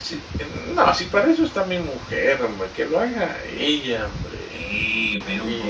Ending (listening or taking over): taking over